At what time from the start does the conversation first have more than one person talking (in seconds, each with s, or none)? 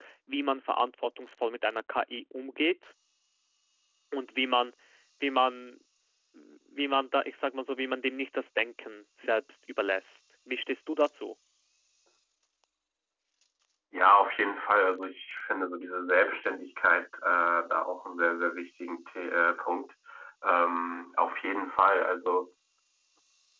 none